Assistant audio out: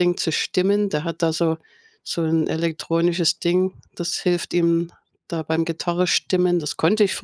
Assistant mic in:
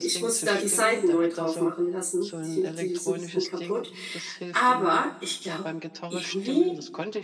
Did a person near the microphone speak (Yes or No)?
Yes